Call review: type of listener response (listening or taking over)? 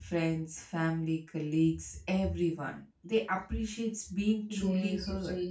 taking over